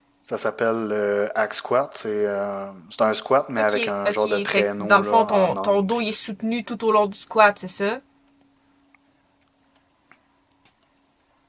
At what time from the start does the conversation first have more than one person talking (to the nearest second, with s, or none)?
4 s